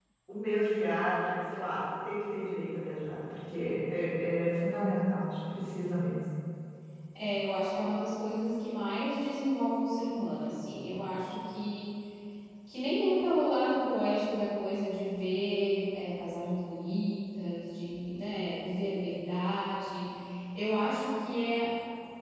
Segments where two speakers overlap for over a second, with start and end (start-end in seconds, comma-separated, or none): none